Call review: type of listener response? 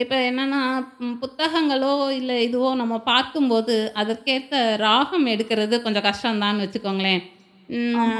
listening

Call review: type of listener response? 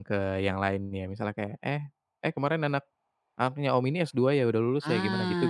taking over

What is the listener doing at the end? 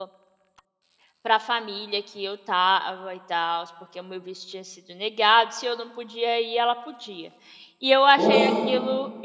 listening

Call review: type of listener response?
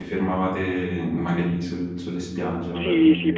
taking over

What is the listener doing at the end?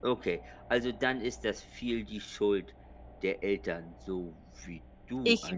taking over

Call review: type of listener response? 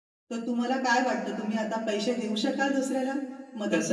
taking over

